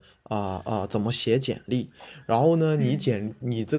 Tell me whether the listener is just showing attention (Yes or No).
Yes